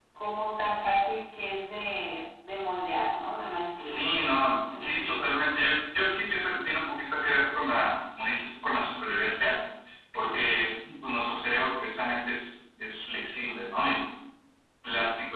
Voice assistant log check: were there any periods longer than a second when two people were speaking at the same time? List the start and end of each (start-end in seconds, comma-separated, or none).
3.8-5.2